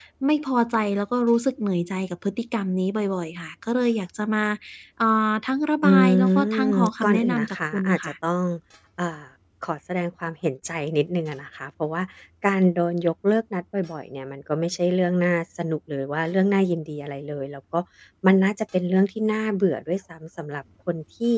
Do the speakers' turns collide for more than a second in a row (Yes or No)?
Yes